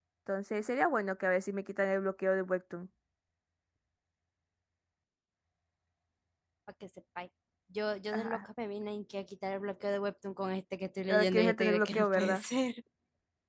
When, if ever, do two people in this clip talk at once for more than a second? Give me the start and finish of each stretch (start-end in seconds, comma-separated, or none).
11.1-12.4